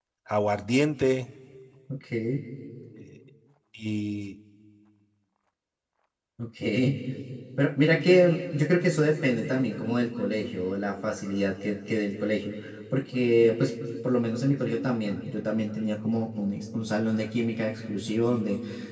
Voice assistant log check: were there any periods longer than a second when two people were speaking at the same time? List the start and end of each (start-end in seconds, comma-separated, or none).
none